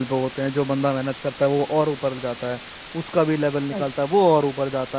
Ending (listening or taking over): listening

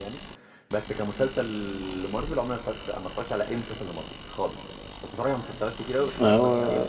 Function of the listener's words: listening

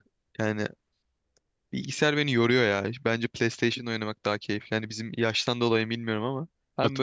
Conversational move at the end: listening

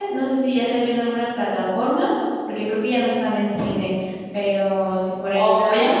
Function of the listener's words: taking over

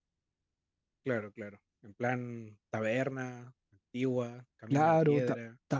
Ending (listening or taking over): taking over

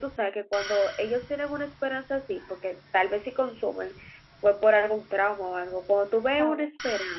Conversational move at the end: listening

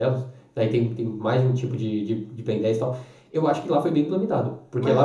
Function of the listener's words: taking over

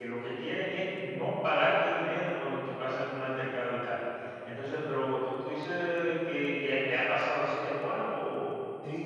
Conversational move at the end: taking over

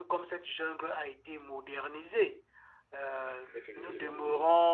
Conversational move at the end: listening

